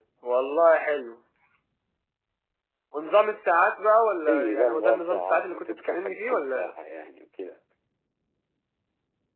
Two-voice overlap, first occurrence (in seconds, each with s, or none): 4.3 s